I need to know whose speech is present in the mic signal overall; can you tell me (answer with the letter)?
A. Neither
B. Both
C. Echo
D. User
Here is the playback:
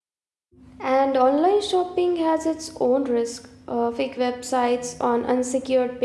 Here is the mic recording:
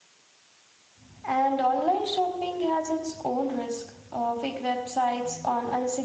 C